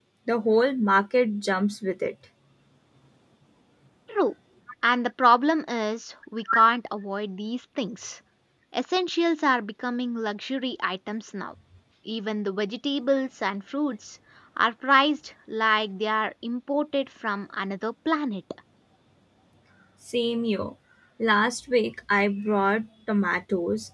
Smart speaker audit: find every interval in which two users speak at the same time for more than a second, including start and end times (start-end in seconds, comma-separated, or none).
none